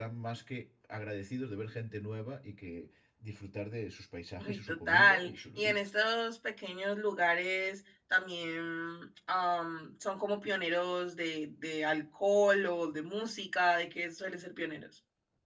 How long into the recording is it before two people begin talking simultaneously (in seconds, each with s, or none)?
4.4 s